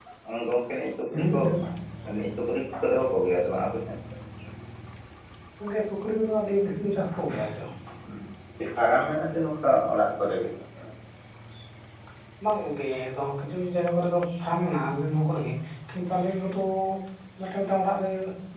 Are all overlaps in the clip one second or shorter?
Yes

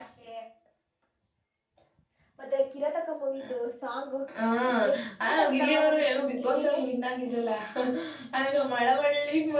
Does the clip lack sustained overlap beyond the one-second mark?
No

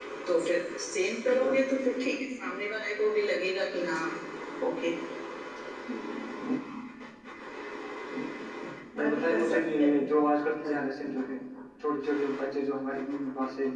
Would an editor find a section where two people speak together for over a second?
Yes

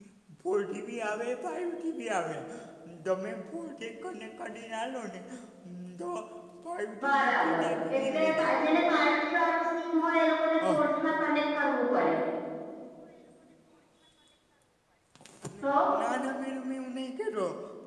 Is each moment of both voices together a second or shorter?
No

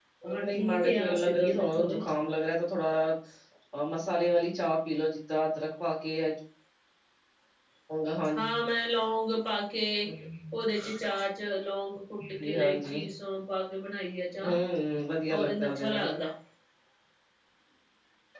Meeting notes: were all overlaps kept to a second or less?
No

